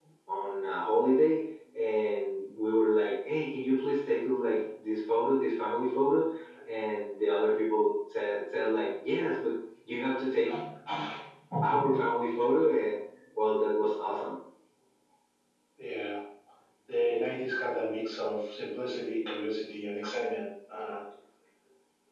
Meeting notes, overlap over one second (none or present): none